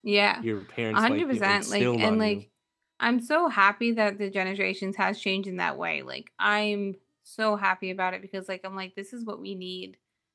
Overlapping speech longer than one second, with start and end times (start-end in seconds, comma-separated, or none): 0.9-2.4